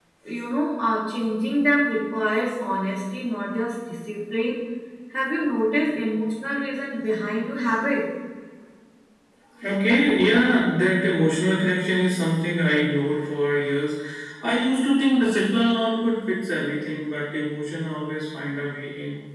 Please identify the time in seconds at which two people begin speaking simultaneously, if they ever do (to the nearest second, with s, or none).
none